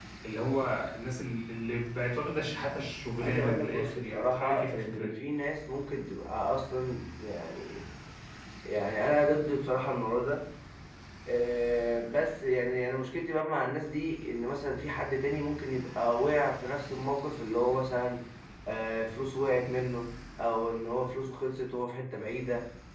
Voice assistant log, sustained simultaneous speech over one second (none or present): present